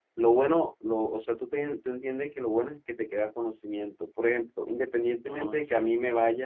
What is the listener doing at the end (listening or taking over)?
listening